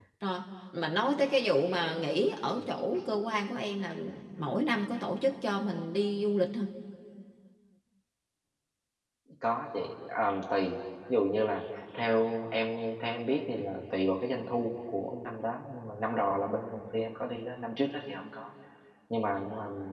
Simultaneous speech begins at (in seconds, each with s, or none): none